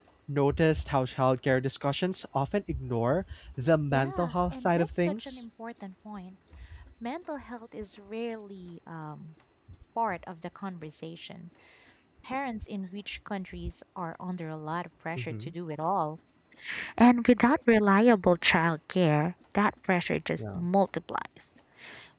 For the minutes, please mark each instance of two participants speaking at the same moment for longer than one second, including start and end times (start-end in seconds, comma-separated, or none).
3.9-5.3